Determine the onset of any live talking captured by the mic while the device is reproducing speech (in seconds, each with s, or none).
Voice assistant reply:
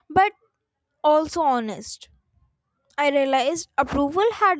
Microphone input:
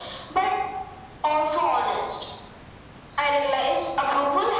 none